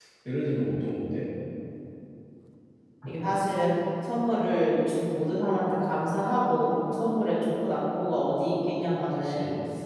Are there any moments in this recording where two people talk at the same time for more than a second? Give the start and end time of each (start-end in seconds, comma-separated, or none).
none